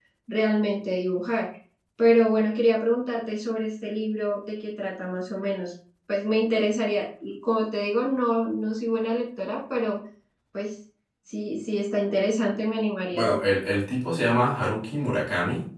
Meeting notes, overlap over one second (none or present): none